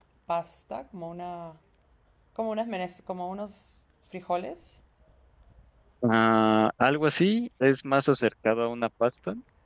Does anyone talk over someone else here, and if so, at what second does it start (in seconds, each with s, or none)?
none